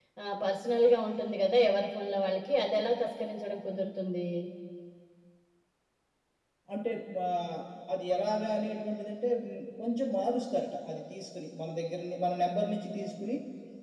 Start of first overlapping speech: none

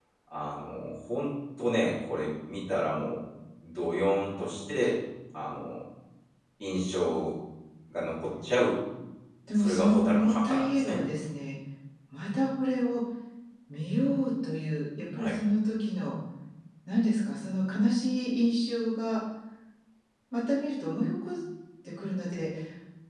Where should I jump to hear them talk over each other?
10 s

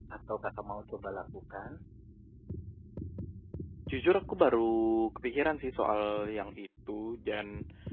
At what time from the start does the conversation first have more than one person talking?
none

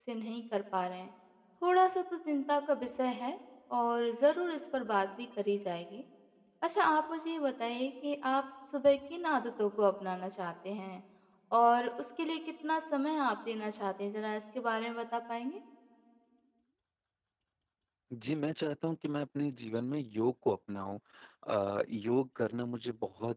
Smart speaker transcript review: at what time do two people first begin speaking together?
none

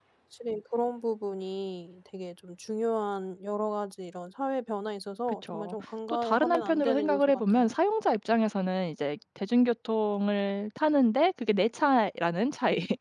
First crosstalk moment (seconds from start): 5 s

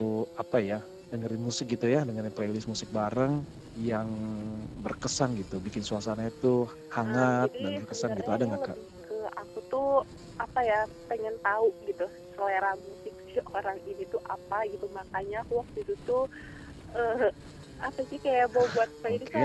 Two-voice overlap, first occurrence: 7 s

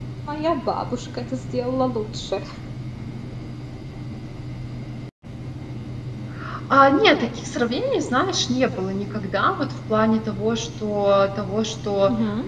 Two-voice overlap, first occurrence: none

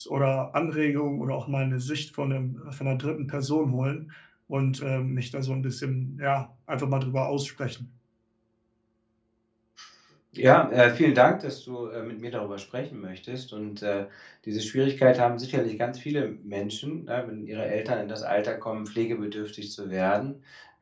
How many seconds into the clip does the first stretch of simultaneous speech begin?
none

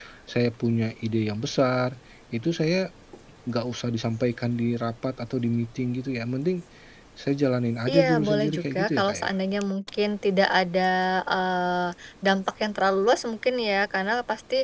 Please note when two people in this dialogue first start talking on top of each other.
8 s

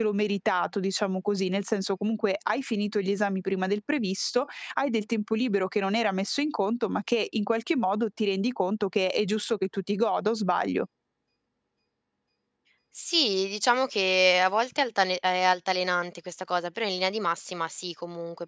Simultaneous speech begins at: none

